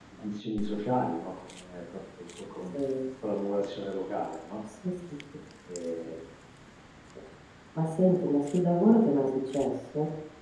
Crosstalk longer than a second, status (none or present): none